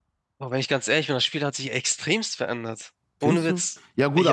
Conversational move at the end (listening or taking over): taking over